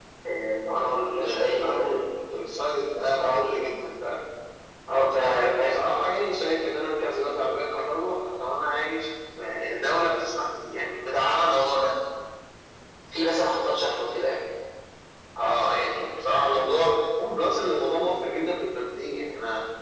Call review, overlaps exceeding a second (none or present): present